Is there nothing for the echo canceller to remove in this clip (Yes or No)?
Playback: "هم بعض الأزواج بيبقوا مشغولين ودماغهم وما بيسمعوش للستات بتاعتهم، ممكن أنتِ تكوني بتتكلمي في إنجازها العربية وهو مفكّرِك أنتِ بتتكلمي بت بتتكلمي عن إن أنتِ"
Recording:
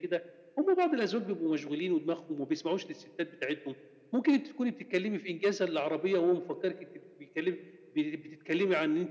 No